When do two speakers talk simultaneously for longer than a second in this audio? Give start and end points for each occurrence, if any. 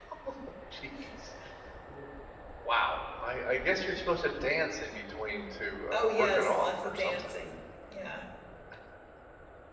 5.9-7.3

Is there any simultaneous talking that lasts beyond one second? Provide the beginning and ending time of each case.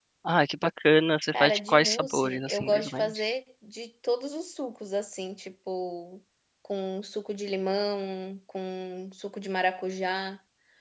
1.3-3.2

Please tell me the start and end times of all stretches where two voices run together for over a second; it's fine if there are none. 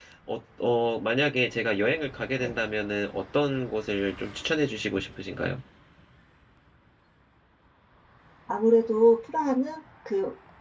none

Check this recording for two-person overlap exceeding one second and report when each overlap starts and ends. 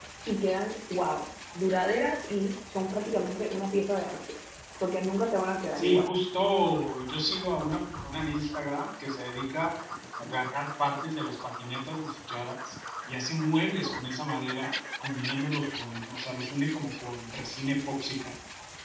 none

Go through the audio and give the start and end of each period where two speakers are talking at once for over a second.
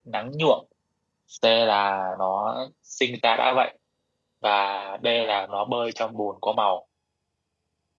none

